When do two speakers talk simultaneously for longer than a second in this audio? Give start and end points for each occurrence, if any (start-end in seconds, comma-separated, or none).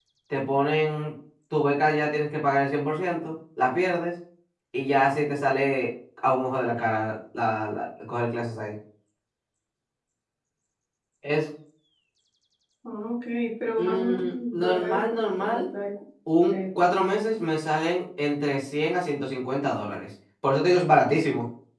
13.8-15.6